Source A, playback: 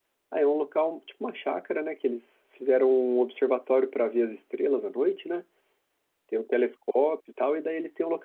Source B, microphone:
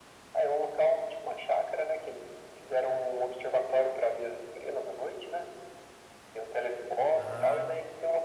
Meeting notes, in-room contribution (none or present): present